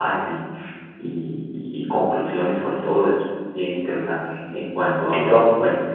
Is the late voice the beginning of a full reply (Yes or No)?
No